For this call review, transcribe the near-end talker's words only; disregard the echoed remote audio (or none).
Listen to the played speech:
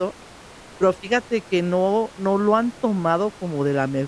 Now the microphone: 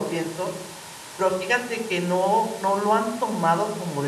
none